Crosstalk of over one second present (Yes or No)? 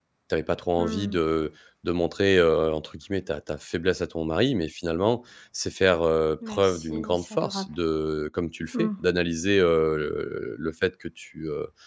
Yes